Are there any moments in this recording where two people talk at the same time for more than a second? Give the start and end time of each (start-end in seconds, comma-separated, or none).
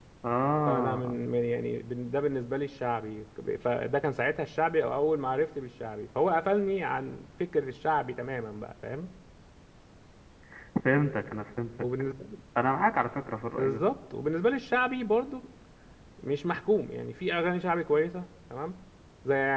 none